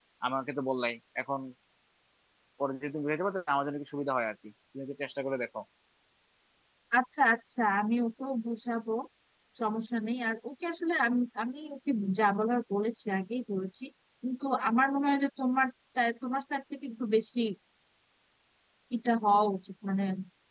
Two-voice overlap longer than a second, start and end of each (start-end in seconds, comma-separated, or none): none